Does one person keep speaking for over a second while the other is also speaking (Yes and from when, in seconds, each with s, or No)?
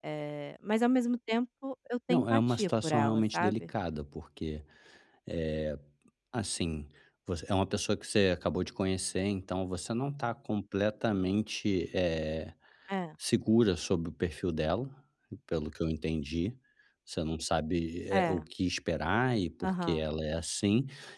Yes, from 2.1 s